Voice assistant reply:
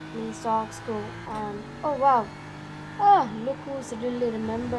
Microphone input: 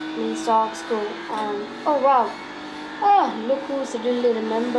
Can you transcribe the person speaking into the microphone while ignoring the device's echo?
none

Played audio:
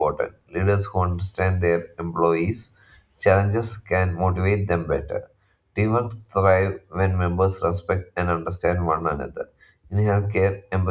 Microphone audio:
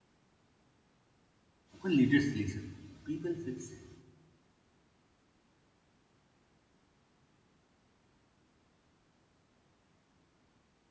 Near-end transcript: When leaders listen, people feel seen.

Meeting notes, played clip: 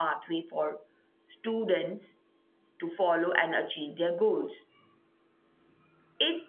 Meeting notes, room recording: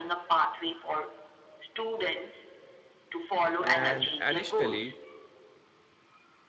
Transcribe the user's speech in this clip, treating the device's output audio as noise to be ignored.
And additionally,

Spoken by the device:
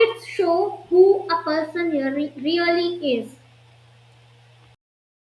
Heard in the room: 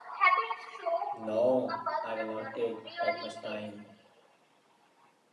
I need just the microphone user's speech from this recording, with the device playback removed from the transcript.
No, I will not take that much time.

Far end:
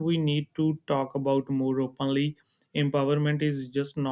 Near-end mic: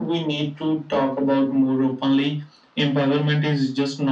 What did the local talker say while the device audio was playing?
none

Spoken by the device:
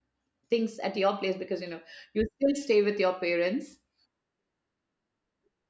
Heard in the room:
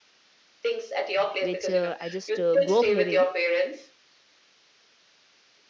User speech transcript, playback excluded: which uh, i just uh, grew up hearing

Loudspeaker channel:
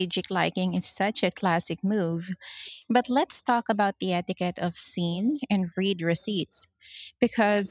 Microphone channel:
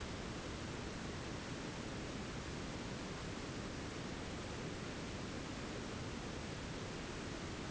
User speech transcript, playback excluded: none

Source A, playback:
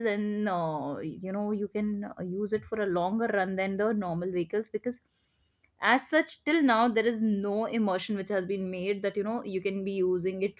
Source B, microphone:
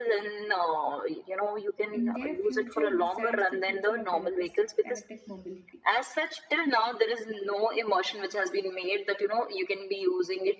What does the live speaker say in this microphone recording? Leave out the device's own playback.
And their future decides the future of electric electric mobility

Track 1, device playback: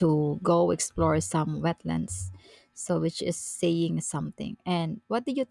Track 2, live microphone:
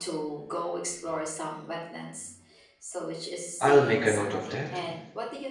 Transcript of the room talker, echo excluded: I'll make a note of that.

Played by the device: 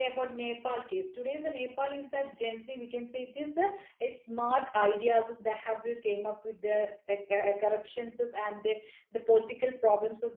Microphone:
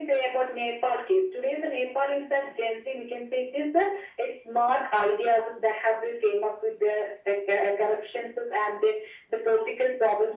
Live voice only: none

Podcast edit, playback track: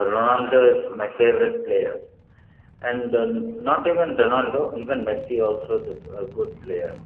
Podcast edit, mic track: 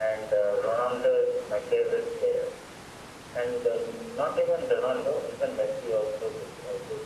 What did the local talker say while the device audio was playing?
none

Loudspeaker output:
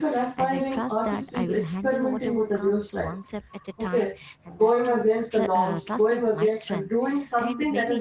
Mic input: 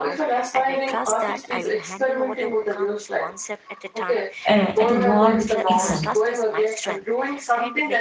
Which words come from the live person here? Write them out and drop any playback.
uh, at war with itself.

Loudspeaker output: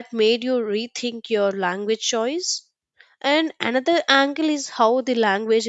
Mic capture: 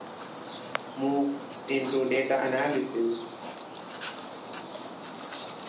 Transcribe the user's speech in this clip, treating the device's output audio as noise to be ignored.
move into data analysis,

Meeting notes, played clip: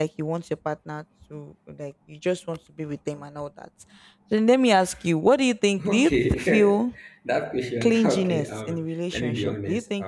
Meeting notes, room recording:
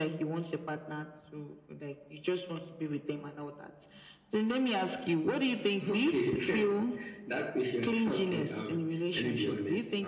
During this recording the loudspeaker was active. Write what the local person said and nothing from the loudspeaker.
none

